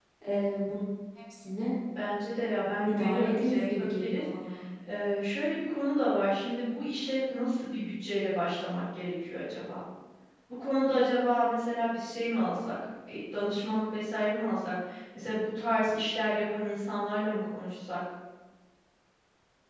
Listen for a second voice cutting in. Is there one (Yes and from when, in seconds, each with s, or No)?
Yes, from 2.9 s